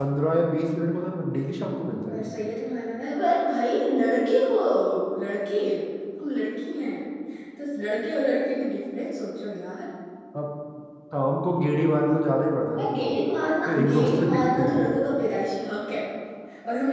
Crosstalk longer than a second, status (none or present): present